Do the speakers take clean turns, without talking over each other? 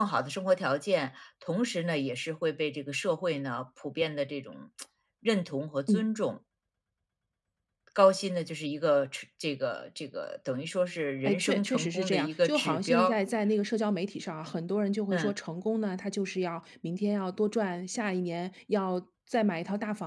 No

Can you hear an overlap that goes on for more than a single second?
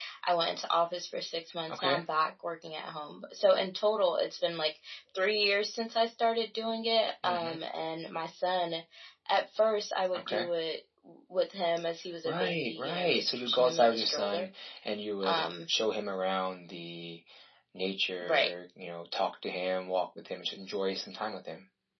Yes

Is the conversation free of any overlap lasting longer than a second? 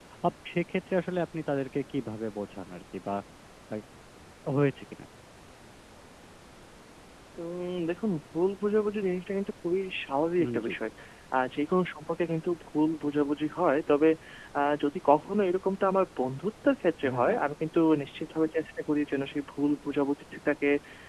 Yes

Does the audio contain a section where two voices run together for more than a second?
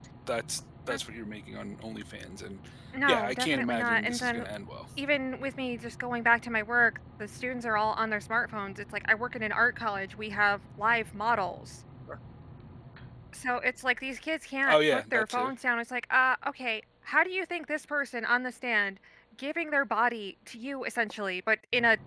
Yes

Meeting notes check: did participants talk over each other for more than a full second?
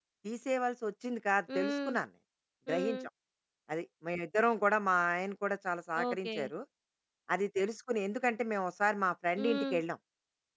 No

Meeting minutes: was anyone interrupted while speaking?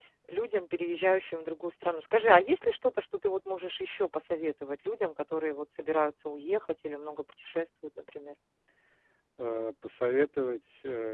No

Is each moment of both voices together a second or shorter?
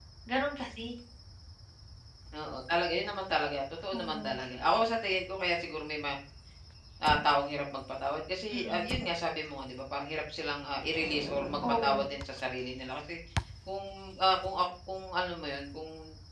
Yes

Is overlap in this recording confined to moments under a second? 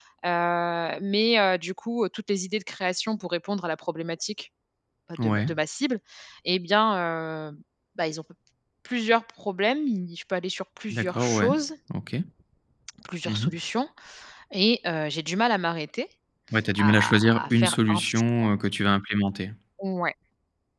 No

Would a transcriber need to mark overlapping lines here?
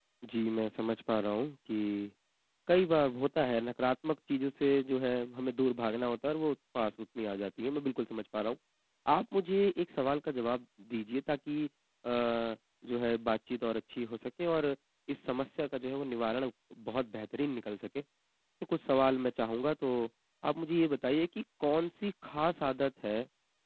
No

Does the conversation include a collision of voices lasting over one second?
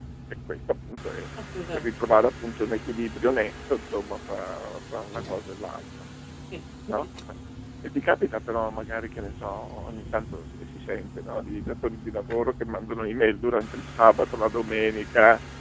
No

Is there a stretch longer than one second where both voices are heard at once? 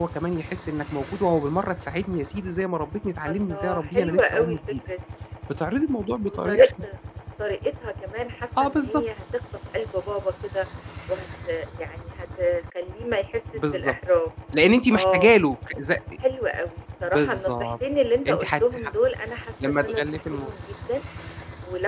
Yes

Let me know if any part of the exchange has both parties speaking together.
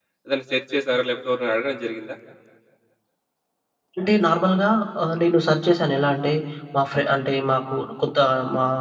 No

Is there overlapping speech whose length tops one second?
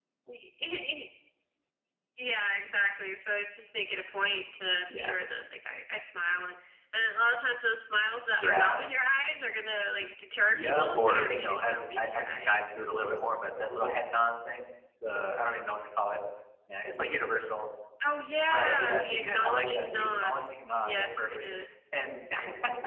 Yes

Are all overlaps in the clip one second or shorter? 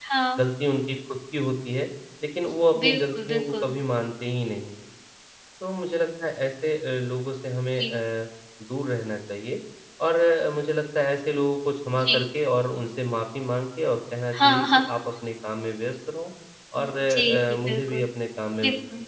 No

